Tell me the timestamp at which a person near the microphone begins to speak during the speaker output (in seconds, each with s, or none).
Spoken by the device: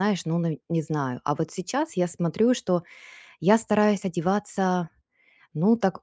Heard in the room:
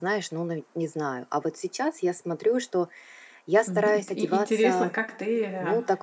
3.6 s